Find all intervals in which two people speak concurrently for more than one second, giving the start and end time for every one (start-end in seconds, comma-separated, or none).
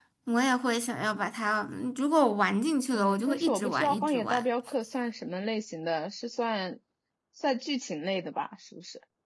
2.9-4.4